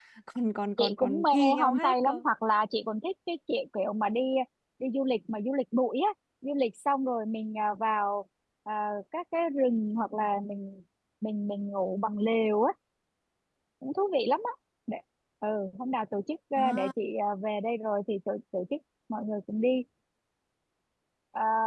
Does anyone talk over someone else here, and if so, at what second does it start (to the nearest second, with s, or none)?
1 s